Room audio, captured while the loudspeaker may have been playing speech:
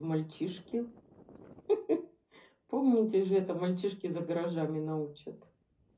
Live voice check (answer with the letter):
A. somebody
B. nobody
A